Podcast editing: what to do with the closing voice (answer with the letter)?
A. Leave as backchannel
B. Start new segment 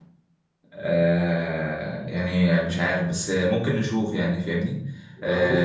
A